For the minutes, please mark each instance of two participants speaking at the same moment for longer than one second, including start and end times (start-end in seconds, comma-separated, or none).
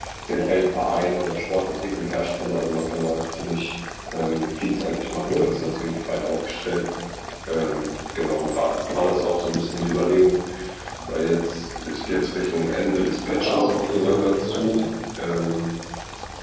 13.3-14.8